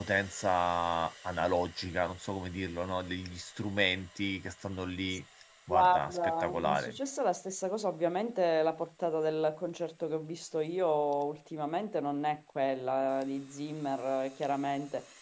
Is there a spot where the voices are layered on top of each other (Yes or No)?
Yes